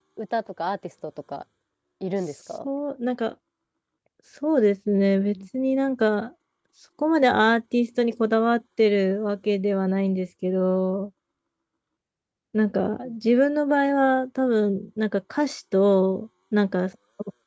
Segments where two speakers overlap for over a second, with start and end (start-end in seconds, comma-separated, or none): none